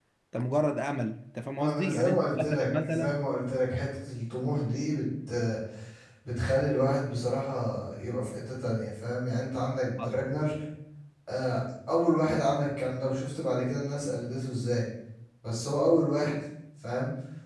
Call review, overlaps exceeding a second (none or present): present